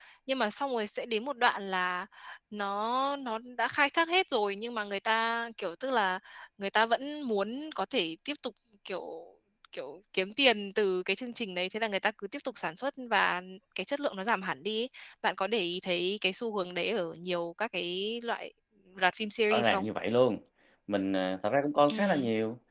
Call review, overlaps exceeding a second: none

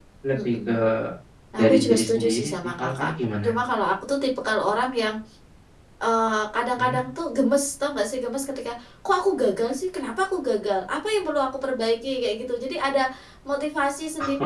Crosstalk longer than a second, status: present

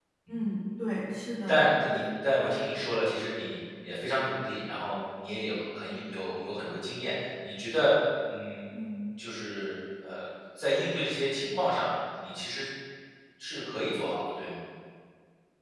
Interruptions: none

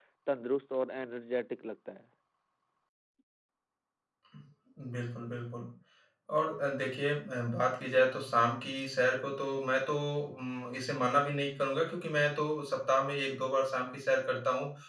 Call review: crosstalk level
none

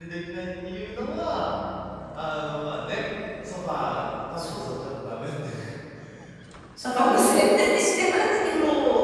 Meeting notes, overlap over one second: none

